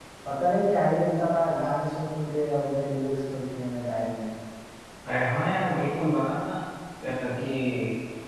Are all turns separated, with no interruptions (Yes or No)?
Yes